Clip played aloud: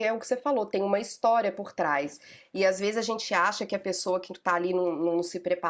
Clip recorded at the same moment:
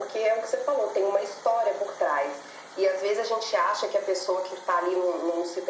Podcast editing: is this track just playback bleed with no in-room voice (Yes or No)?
Yes